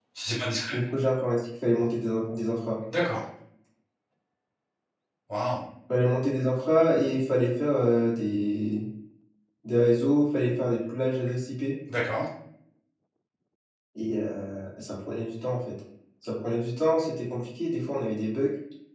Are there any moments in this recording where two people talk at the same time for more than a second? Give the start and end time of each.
none

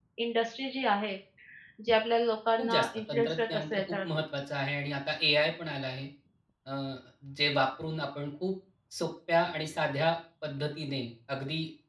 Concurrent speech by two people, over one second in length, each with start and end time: 2.6-4.1

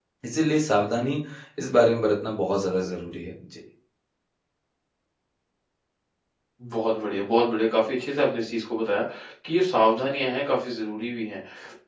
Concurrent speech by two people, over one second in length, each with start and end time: none

